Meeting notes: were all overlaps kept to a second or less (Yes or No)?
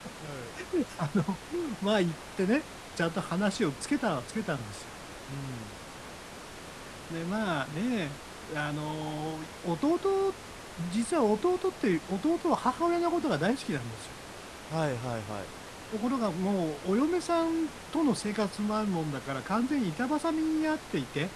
Yes